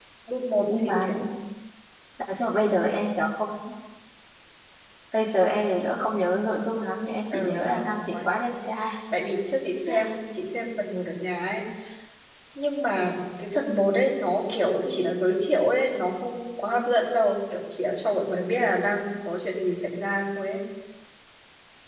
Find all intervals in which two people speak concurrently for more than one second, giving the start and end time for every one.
7.3-8.6

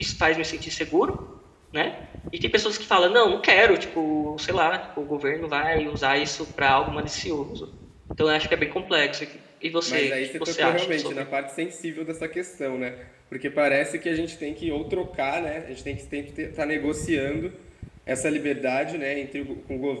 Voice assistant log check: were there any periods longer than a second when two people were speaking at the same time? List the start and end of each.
9.9-11.2

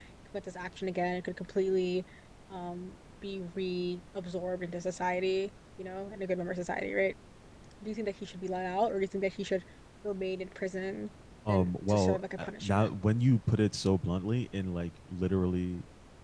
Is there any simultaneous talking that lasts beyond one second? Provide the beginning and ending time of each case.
11.5-12.9

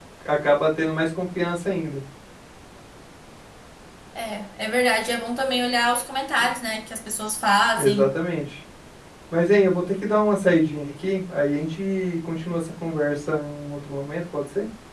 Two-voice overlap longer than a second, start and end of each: none

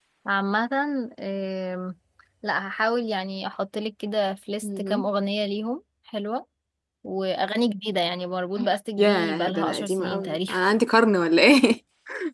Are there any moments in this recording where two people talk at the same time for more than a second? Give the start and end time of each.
9.0-10.5

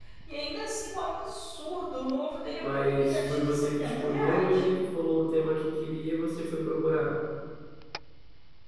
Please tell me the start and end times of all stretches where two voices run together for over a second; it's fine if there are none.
2.6-4.6

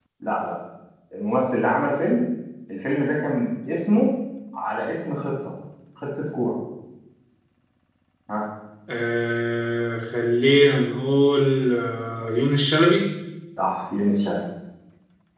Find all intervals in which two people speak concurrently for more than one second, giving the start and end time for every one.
none

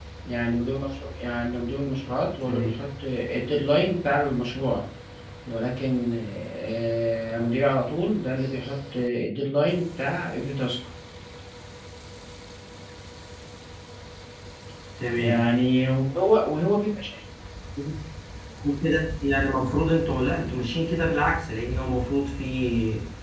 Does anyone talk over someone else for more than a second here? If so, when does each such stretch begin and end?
none

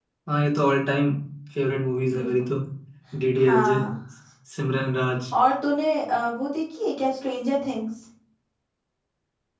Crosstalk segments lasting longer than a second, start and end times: none

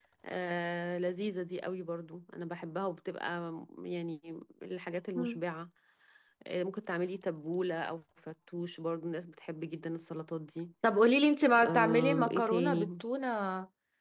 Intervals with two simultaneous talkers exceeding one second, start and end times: 11.7-13.0

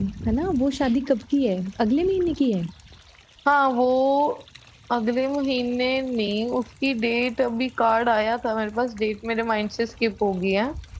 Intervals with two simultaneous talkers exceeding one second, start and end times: none

